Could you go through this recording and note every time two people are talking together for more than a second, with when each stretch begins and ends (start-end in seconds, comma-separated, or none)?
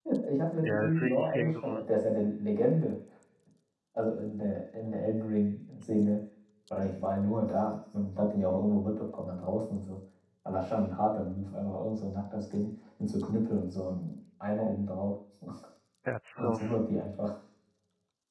0.6-1.8